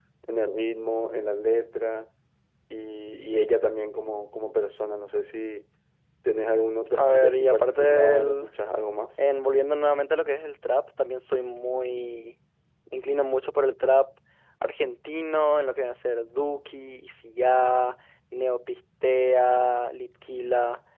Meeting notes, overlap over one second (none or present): present